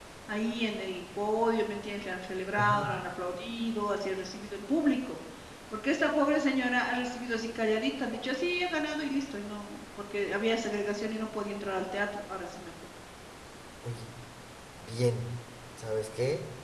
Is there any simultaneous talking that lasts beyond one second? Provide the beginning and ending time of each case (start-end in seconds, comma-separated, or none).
none